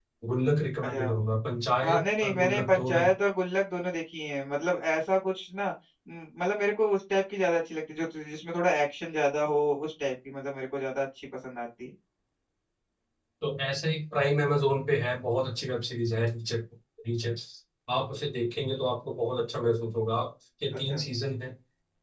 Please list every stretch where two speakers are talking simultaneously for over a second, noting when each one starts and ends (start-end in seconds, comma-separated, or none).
1.8-3.1